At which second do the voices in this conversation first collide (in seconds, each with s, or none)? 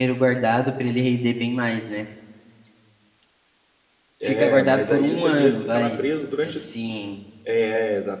4.2 s